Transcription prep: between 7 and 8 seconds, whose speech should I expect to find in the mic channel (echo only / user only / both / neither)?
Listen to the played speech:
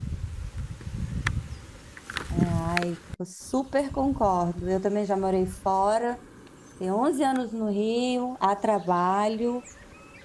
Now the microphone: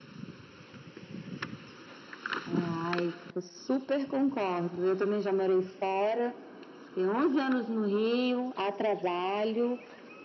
echo only